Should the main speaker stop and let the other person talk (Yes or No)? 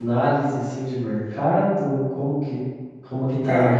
No